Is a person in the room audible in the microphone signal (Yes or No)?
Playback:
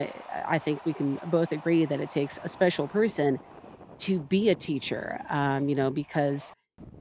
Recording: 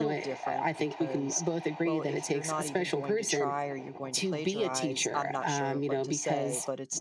Yes